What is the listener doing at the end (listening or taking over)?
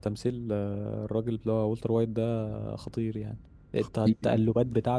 listening